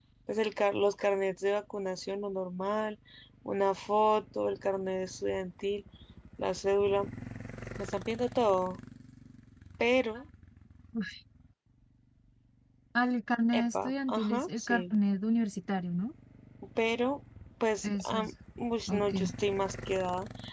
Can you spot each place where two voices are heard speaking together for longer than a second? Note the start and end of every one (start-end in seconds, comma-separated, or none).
13.5-14.9